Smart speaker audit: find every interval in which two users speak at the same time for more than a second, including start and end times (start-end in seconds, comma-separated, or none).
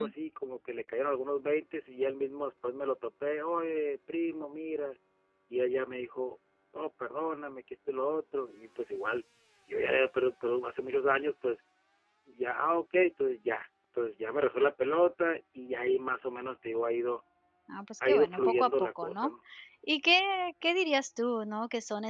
18.1-19.3